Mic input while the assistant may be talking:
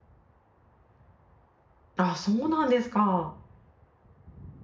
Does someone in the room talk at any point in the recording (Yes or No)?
Yes